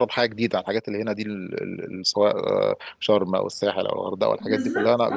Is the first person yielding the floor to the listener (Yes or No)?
Yes